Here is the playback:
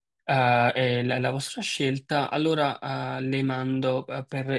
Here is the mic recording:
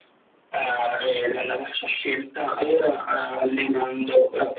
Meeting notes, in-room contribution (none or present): none